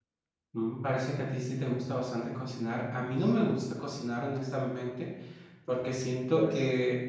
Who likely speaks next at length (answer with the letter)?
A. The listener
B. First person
B